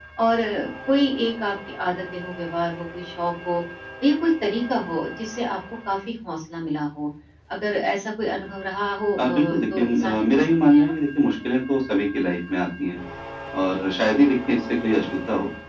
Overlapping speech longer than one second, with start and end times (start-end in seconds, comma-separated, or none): 9.2-10.9